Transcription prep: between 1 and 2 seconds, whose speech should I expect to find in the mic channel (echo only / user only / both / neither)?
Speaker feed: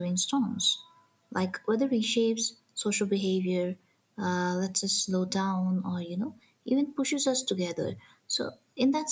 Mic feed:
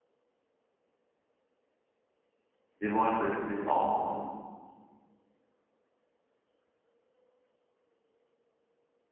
neither